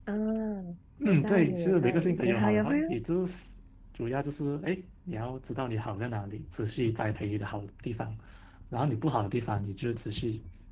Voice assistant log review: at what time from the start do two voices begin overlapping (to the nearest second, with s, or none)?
1 s